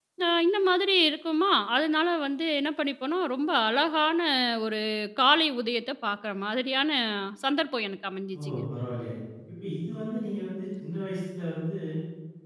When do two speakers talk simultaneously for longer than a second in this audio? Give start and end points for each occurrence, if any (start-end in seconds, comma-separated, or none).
none